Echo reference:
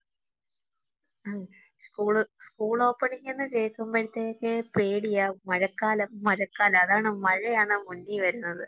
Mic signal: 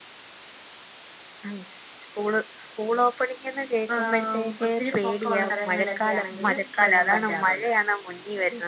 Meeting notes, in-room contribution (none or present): present